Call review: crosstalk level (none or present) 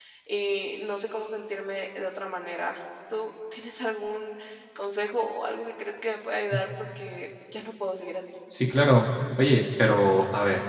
none